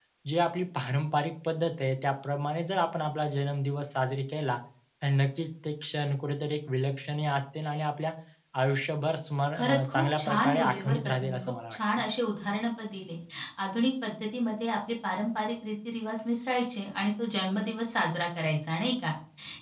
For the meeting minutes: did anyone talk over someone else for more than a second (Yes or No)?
Yes